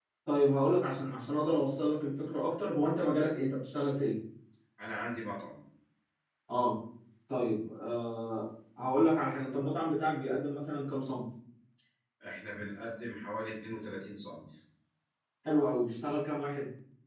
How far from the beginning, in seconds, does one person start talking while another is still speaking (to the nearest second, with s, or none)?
none